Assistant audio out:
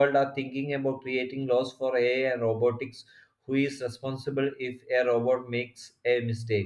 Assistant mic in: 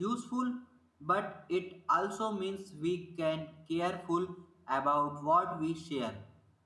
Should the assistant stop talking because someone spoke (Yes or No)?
Yes